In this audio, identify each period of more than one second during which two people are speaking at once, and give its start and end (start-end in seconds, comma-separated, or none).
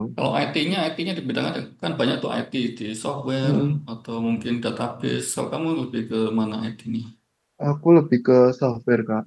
none